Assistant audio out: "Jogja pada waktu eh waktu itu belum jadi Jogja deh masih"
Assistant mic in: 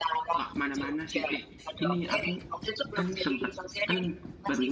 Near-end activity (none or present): present